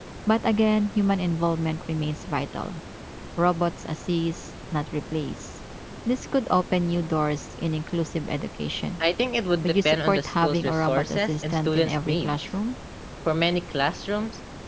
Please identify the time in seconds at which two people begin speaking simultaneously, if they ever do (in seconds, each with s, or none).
9.6 s